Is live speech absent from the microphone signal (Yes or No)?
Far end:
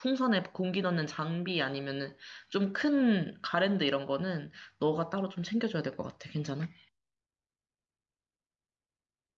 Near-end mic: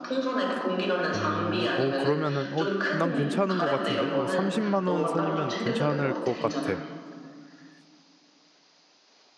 No